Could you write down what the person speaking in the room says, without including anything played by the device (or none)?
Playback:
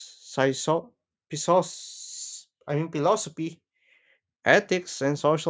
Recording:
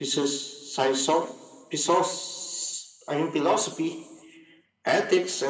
none